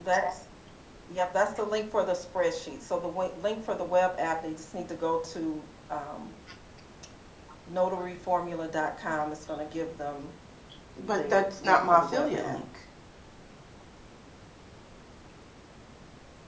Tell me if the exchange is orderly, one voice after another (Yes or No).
No